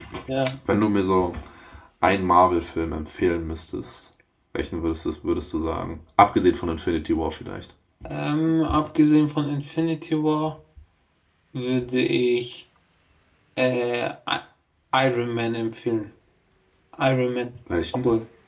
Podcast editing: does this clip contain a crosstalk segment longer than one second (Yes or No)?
No